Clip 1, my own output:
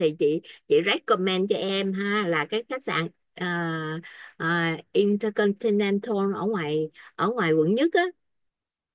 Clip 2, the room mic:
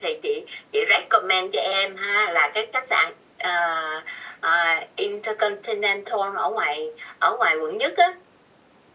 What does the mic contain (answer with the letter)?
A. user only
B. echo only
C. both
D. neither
B